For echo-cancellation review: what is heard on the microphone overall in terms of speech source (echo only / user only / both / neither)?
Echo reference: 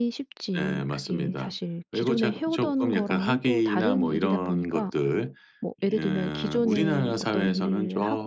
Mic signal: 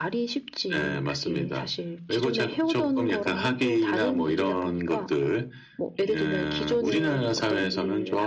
echo only